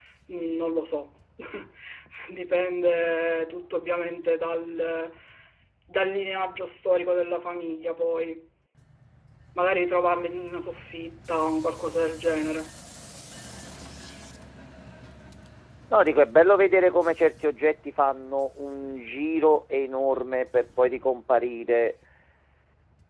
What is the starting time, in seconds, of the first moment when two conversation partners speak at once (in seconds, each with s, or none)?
none